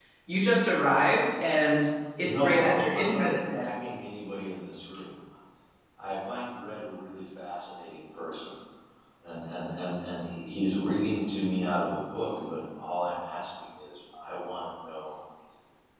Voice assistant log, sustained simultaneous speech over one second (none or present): present